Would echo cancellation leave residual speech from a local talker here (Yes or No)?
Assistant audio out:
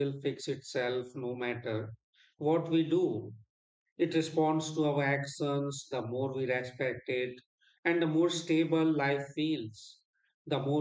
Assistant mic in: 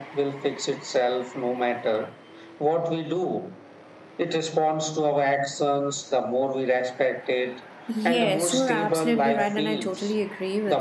Yes